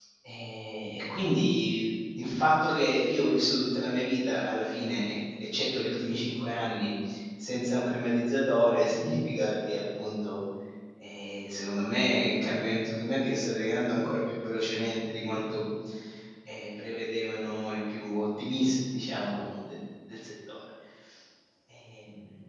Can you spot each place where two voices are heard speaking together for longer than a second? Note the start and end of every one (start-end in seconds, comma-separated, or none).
none